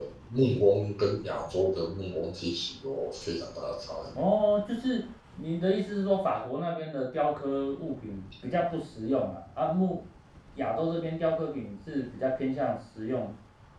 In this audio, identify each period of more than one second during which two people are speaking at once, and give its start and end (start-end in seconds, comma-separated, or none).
none